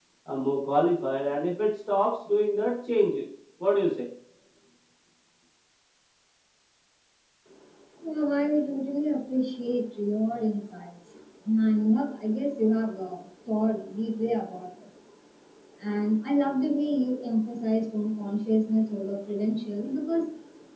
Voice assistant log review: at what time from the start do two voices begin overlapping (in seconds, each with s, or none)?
none